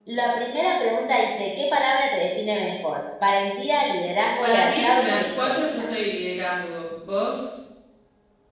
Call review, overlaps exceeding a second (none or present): present